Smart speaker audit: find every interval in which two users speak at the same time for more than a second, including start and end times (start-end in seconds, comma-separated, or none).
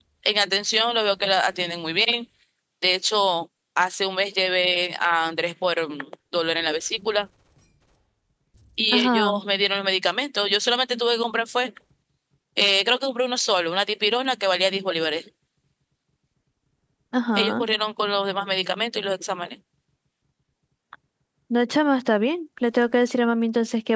none